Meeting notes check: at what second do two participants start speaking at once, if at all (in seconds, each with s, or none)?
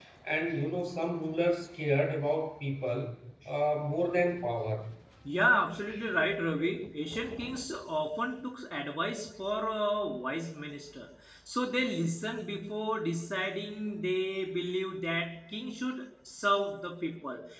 none